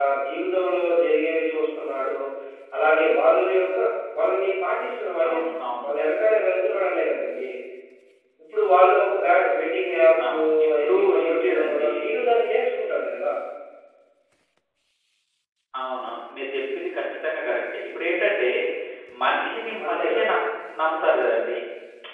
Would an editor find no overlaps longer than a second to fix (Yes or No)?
No